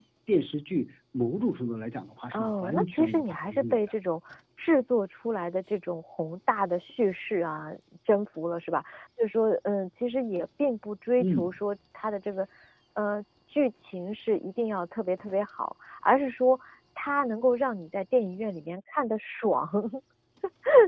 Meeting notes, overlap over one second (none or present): present